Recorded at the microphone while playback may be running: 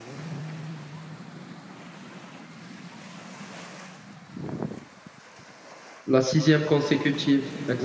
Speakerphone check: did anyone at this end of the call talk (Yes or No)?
Yes